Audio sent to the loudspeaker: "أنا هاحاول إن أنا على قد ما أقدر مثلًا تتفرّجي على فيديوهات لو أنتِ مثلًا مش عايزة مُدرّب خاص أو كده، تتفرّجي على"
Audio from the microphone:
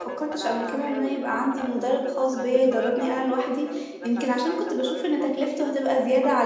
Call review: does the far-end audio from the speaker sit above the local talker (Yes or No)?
No